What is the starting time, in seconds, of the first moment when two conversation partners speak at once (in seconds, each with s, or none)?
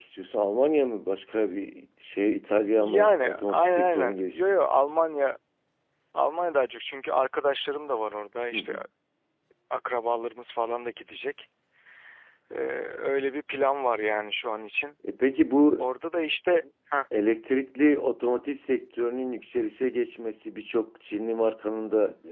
2.8 s